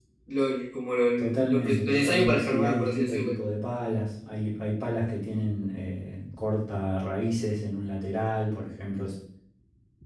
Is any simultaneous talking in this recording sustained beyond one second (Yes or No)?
Yes